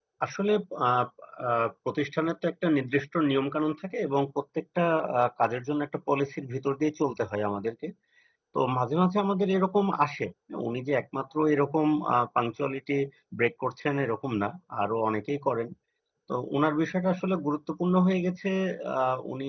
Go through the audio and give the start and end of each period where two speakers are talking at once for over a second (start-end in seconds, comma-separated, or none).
none